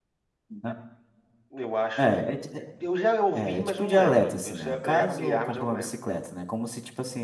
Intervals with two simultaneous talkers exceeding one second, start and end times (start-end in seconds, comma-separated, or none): 3.3-5.9